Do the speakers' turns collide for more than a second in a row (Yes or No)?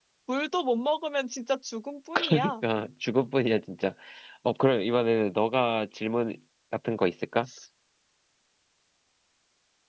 No